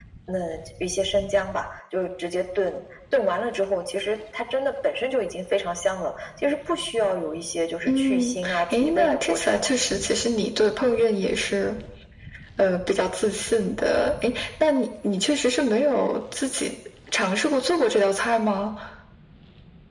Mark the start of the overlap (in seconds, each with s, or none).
7.9 s